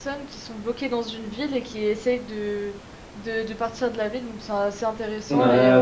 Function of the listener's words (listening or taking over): taking over